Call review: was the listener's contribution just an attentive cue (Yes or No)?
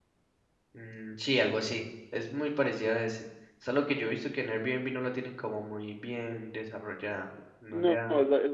No